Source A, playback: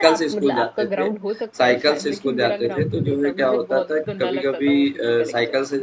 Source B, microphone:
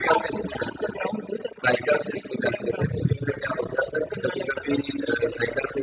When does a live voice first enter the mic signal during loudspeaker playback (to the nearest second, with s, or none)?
none